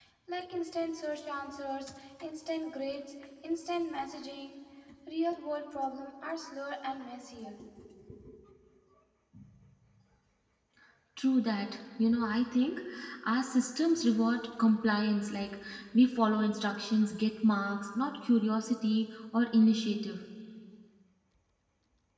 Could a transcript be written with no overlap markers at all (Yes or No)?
Yes